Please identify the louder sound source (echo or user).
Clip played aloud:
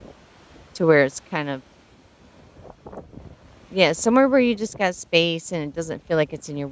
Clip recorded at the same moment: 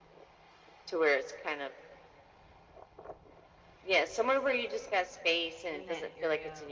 echo